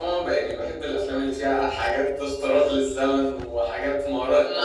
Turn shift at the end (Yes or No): No